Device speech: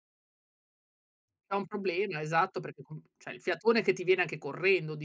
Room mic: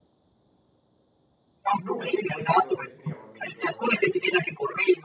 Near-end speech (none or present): present